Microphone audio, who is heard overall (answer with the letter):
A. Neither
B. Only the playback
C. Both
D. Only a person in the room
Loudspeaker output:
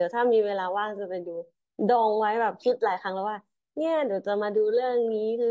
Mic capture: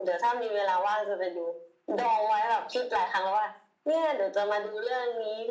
B